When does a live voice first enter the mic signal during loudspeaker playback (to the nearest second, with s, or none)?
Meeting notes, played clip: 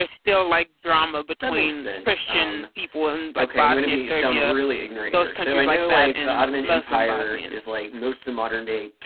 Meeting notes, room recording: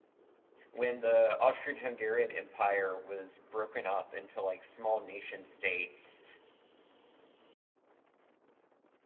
1 s